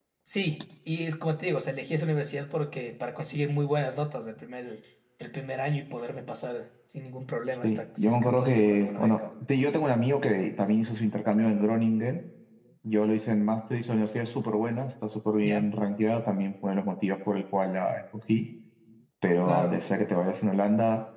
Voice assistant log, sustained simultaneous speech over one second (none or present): present